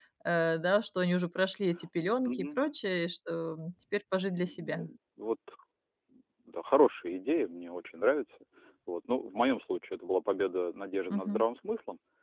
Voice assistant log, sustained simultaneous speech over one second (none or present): none